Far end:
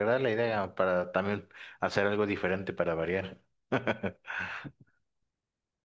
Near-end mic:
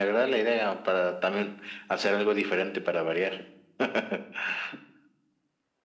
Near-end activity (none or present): none